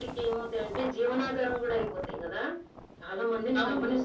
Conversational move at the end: listening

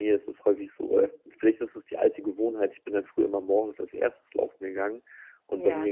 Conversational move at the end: listening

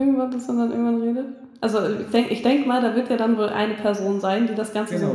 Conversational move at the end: taking over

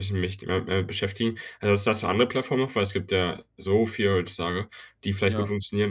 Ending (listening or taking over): listening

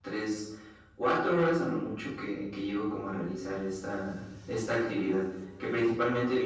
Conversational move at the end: listening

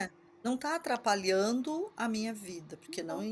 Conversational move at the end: listening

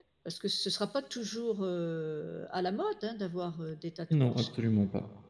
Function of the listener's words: taking over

